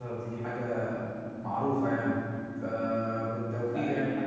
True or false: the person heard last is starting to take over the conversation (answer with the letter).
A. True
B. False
B